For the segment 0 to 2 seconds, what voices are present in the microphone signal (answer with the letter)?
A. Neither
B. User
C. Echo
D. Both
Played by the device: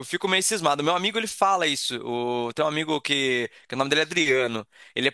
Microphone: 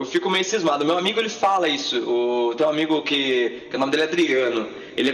C